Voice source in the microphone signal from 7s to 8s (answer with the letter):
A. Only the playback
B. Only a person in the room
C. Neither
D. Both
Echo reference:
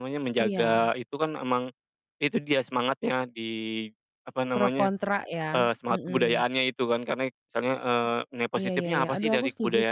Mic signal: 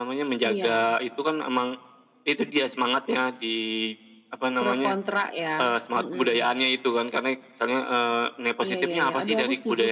A